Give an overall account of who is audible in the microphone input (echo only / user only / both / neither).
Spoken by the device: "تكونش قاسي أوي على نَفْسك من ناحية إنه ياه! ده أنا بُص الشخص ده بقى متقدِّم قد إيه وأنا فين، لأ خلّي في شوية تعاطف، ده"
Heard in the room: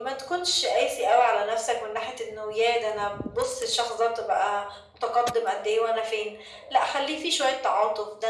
echo only